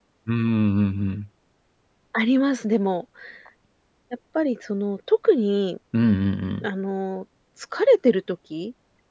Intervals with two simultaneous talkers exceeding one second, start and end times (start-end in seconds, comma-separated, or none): none